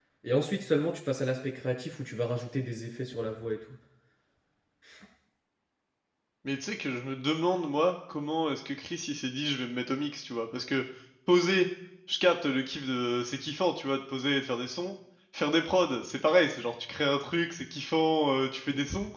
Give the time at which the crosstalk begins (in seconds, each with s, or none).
none